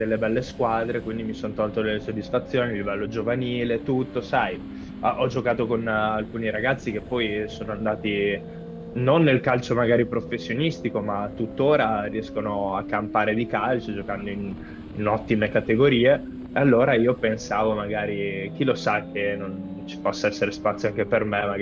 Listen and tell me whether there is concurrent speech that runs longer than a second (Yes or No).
No